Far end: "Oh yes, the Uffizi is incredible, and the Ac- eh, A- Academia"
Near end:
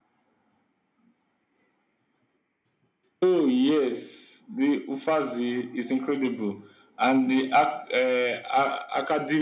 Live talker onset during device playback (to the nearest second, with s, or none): none